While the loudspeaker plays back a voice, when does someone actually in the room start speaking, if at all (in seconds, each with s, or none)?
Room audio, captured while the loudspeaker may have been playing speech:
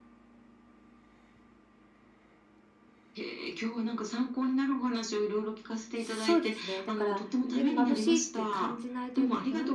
5.9 s